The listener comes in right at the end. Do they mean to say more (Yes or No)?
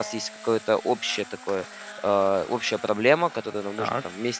No